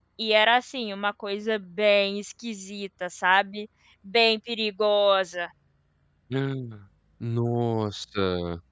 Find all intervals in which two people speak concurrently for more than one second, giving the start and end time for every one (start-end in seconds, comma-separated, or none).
none